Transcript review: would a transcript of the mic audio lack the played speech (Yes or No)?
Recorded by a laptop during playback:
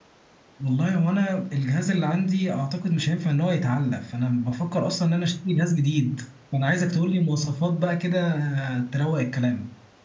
Yes